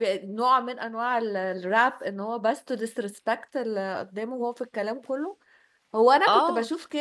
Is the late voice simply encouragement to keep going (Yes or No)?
Yes